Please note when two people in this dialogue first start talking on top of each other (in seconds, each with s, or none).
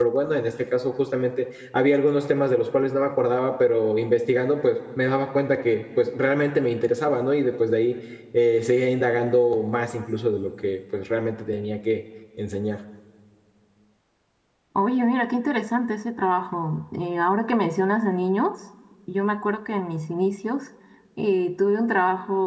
none